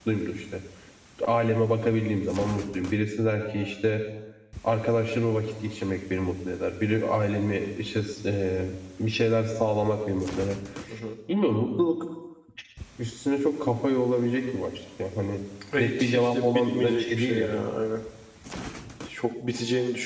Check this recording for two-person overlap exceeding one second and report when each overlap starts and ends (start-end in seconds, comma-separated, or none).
15.8-17.5